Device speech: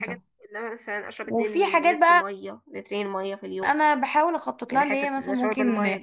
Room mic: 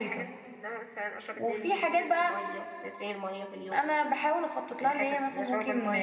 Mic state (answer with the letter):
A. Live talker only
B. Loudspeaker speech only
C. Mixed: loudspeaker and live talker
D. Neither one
B